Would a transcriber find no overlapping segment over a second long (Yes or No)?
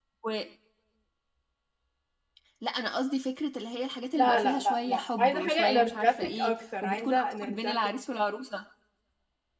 No